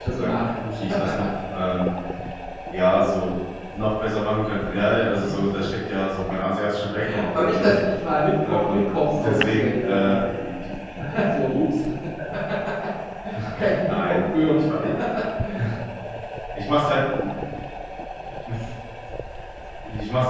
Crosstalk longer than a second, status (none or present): present